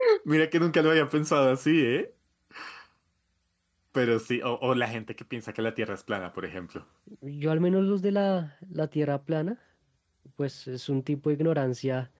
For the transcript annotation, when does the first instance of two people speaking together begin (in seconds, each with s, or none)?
none